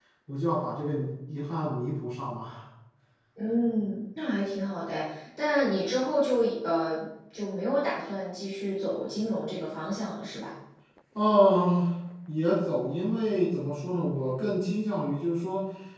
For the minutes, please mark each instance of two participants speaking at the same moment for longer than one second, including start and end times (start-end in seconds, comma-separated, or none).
none